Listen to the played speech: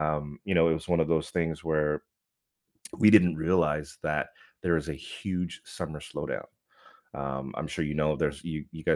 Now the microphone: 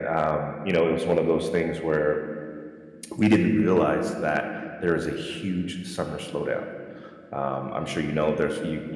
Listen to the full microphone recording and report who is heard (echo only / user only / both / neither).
echo only